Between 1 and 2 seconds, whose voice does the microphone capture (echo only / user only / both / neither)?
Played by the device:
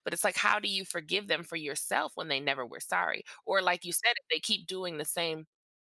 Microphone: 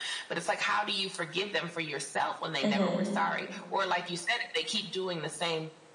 echo only